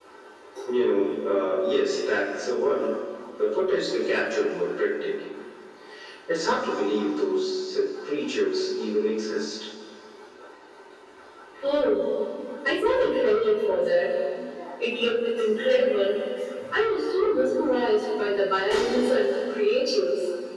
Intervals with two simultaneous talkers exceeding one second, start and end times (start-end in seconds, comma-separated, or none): none